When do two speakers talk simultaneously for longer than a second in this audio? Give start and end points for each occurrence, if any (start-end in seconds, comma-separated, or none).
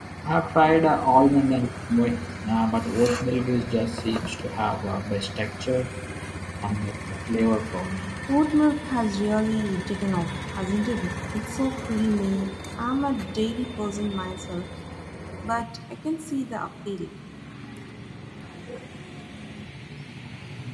none